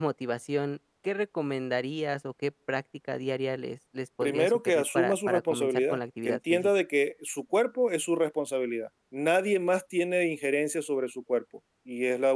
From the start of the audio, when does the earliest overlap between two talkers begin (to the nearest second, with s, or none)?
4 s